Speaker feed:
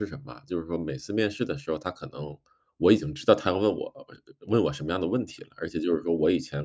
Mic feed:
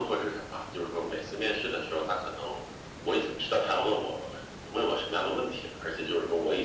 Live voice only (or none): none